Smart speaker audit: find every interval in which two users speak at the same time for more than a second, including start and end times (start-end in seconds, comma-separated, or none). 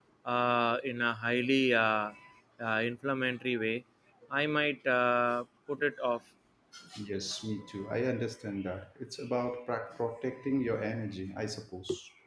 none